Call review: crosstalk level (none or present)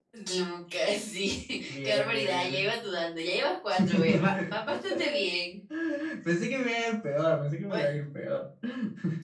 present